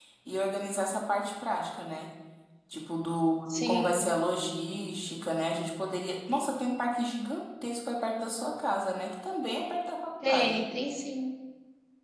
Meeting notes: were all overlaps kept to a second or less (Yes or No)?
Yes